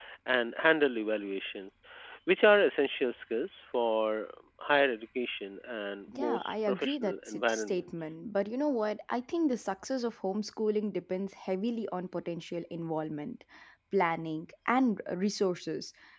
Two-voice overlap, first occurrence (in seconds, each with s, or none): 6.1 s